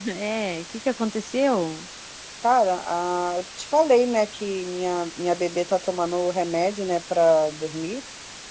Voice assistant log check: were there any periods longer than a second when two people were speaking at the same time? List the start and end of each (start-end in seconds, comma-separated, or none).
none